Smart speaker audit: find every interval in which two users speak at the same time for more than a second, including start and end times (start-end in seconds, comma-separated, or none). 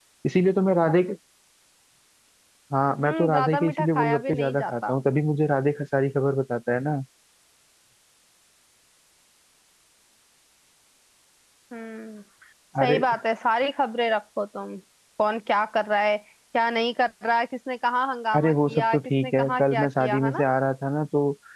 3.0-4.9, 18.3-20.4